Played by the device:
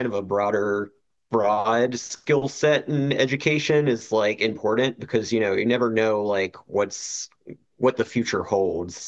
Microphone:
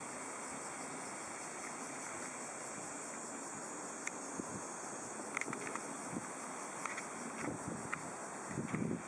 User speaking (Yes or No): No